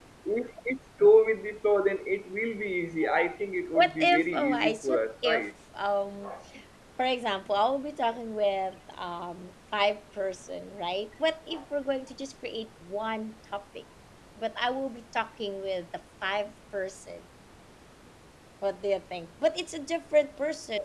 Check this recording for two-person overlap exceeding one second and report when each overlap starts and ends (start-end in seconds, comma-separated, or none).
3.7-5.5